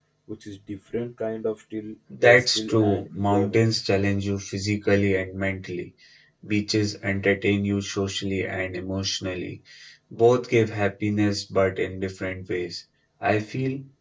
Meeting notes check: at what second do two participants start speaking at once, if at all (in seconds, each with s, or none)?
2.1 s